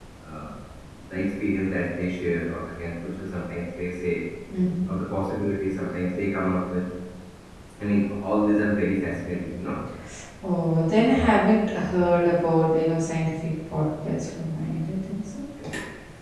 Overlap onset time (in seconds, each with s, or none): none